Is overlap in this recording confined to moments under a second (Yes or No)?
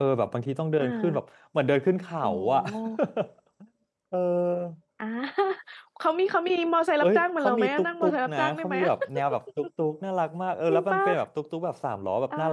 No